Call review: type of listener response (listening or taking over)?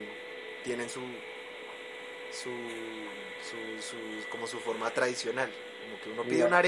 listening